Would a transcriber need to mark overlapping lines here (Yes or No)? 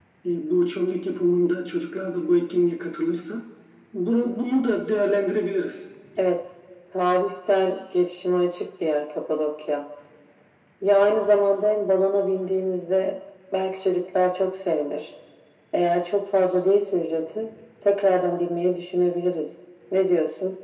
No